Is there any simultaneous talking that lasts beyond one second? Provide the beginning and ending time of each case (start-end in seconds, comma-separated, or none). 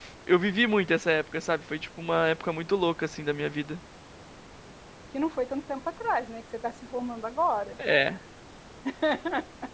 none